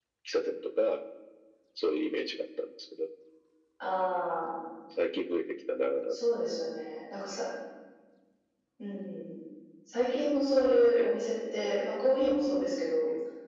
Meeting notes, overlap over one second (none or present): none